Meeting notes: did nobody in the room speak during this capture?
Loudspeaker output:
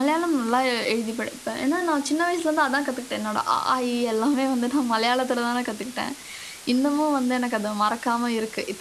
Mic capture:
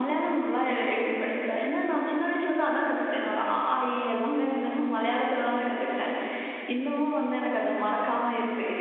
Yes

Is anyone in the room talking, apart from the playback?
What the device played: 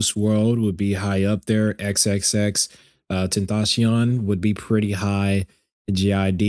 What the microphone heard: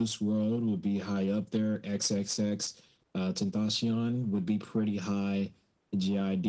No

